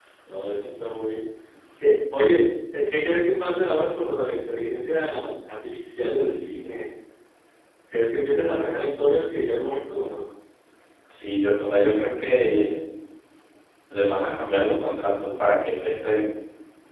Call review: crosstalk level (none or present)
none